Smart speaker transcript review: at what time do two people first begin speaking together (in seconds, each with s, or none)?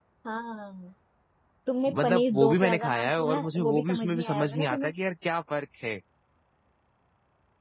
2.0 s